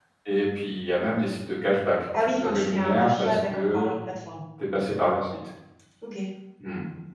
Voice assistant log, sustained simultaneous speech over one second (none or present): present